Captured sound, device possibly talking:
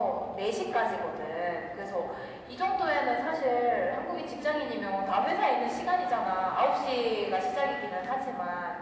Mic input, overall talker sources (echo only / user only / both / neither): echo only